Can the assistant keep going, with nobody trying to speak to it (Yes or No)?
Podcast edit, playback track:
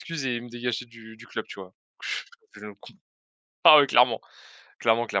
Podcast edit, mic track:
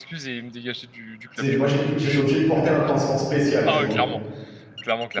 No